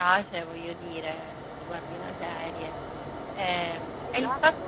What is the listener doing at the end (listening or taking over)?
listening